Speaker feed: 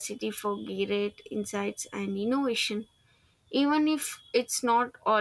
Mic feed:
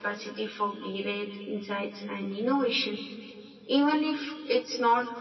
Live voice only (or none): none